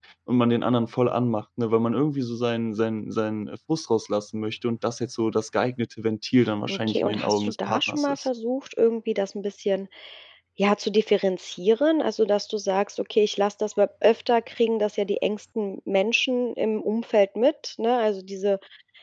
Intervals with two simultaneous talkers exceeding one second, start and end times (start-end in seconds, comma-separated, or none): 6.7-8.3